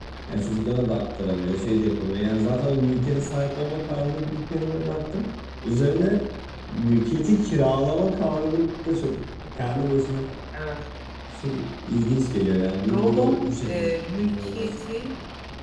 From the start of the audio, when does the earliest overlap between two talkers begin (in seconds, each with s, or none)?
12.9 s